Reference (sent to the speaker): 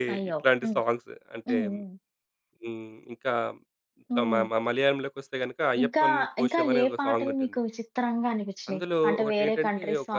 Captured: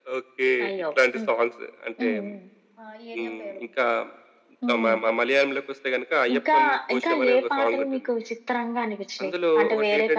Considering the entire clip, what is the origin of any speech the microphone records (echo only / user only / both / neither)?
both